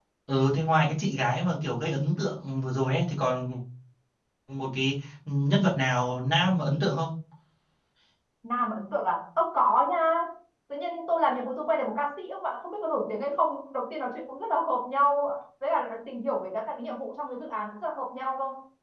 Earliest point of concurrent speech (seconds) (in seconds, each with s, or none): none